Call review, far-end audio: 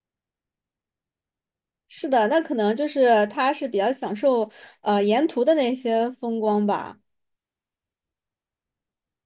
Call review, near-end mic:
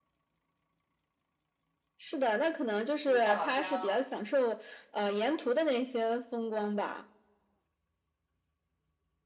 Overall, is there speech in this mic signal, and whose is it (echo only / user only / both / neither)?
both